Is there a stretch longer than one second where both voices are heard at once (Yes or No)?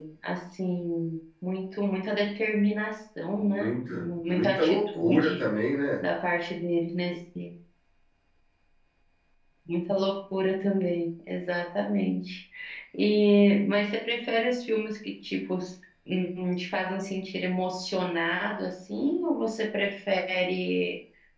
Yes